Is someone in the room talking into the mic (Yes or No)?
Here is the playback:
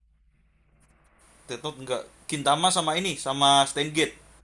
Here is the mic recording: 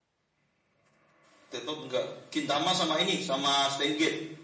No